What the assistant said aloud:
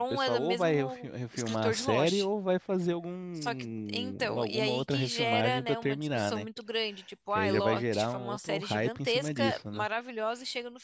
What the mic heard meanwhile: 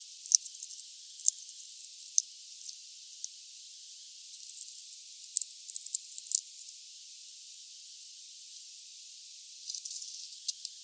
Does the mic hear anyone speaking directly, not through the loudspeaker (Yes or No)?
No